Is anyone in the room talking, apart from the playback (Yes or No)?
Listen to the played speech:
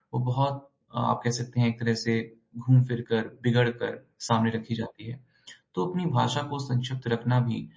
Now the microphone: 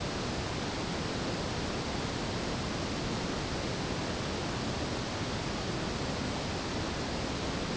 No